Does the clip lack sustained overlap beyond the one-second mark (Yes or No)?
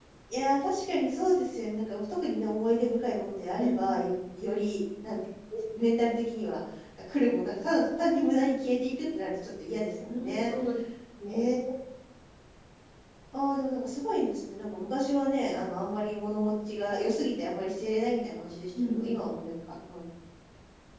Yes